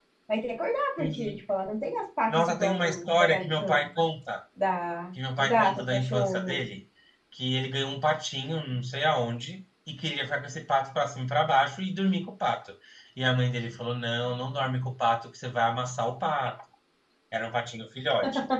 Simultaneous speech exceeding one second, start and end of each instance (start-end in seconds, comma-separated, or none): 2.3-3.9, 5.4-6.6